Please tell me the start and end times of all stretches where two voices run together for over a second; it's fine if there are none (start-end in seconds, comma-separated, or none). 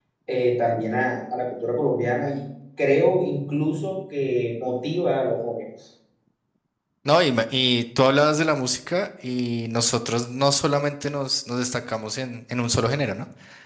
none